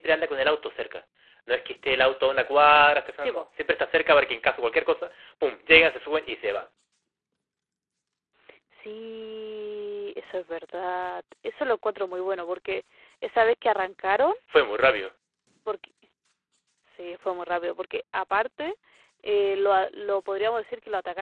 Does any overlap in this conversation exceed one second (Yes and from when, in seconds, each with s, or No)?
No